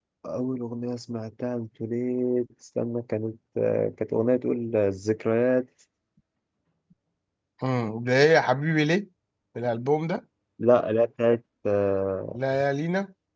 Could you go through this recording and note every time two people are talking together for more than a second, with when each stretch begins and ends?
none

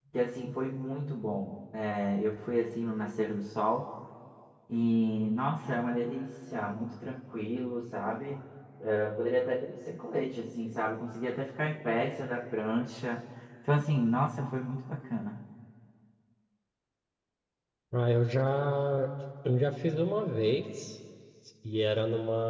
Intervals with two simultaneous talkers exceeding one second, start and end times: none

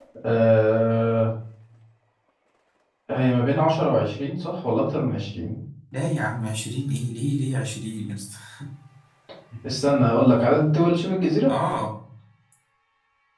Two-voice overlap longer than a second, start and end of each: none

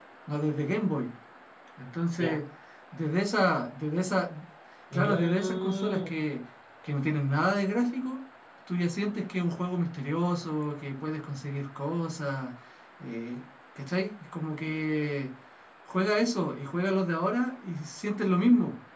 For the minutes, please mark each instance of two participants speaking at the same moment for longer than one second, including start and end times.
4.9-6.2

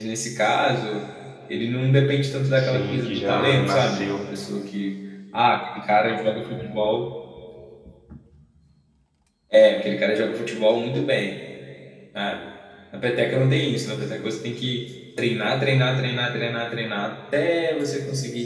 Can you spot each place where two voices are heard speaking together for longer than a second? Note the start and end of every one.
2.6-4.2

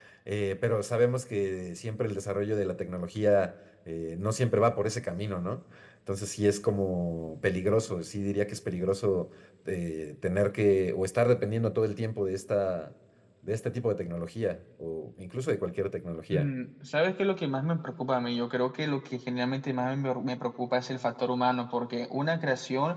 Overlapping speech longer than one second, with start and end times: none

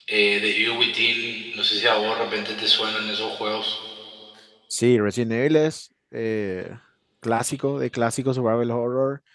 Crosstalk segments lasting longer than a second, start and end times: none

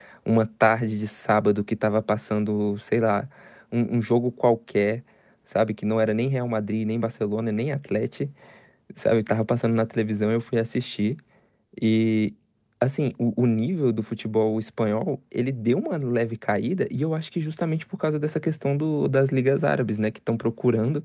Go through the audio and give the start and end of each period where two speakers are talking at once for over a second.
none

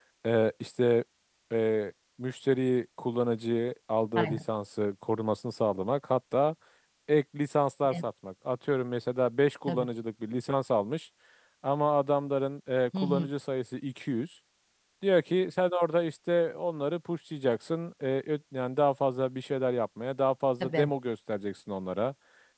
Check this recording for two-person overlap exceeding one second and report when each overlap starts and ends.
none

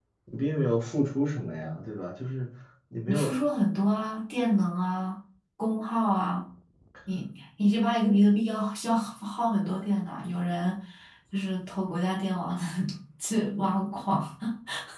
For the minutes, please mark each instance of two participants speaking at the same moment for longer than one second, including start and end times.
none

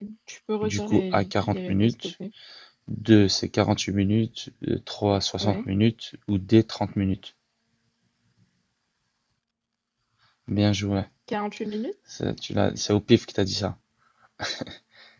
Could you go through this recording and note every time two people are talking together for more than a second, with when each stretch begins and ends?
0.6-2.1

